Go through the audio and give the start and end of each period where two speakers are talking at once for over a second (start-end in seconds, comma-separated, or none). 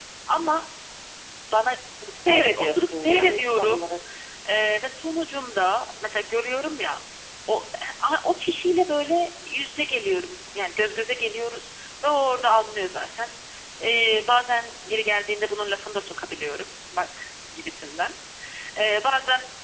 2.3-3.8